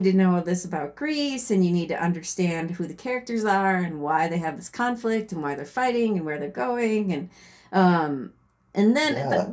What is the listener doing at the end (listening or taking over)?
listening